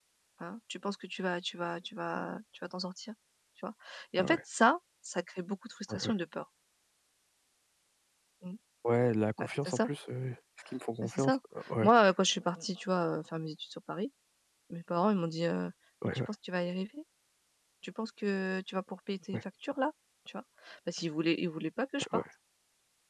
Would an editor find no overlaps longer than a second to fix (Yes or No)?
Yes